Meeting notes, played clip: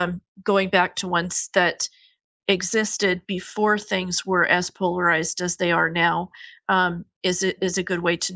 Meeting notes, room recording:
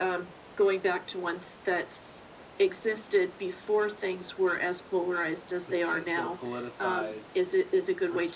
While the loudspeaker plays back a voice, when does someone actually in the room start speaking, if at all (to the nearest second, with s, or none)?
6 s